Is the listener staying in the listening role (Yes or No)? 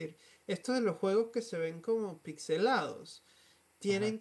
Yes